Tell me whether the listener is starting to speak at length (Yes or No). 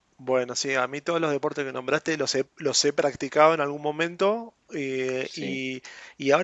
No